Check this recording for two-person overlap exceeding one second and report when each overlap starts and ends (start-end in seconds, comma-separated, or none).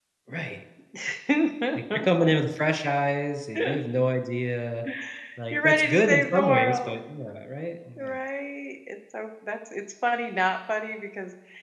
5.5-7.0